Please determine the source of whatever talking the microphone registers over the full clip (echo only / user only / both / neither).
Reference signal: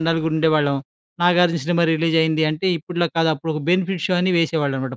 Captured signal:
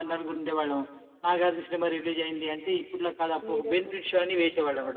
both